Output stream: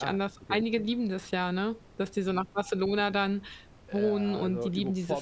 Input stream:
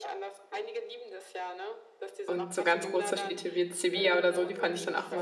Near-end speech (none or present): present